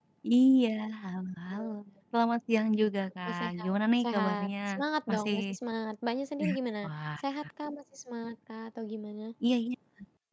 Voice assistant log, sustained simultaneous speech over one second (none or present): present